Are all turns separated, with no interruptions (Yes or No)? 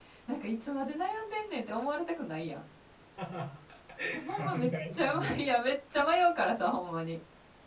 No